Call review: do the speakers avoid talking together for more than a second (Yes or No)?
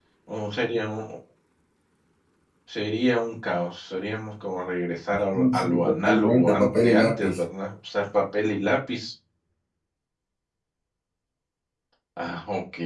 No